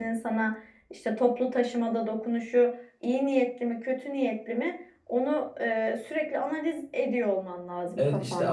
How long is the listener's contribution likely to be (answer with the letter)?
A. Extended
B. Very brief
A